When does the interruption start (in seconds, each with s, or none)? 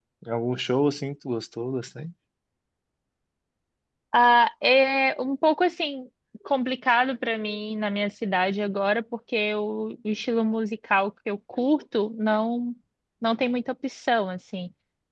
none